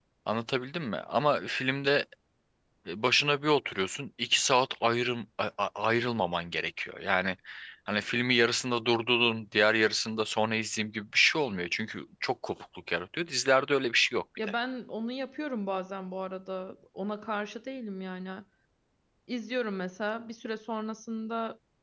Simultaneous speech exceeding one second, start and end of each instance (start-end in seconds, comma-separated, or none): none